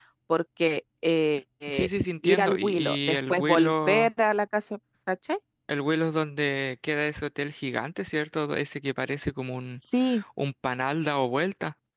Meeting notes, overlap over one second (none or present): present